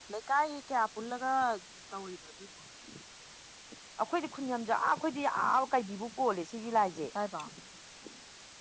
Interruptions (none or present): none